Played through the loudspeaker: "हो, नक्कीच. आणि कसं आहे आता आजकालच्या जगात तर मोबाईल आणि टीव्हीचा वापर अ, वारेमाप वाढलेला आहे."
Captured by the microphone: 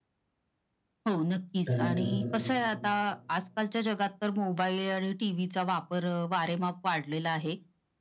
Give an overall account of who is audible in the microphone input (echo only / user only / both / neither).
both